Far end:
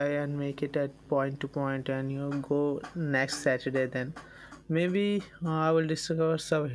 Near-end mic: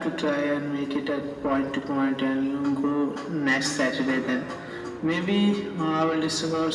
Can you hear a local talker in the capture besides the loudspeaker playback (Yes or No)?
No